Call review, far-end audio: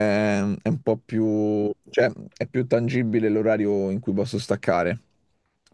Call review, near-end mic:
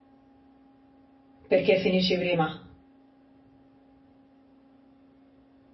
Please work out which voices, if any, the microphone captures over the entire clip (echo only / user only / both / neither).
user only